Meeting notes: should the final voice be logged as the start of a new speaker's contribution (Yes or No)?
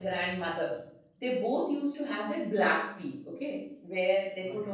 No